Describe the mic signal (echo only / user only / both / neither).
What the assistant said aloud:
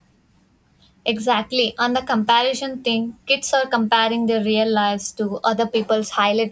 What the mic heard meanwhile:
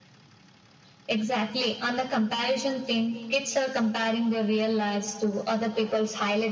echo only